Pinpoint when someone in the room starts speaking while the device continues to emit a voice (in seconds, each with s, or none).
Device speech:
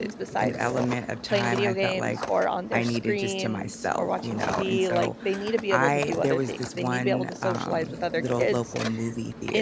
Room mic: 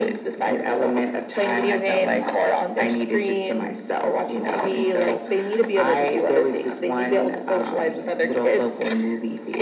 none